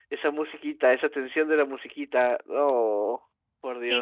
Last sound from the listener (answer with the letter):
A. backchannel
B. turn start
B